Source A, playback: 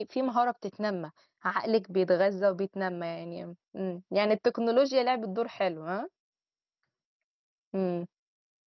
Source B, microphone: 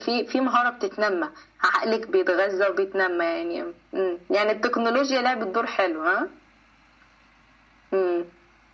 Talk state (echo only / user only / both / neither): echo only